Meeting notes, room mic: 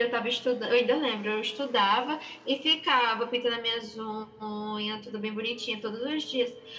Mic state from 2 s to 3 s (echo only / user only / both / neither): echo only